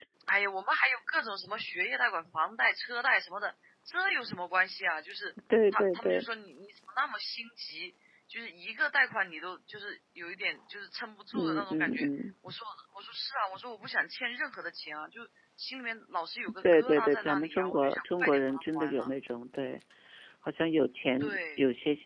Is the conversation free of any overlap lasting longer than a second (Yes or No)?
No